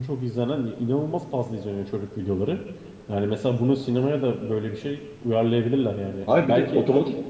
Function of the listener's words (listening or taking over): taking over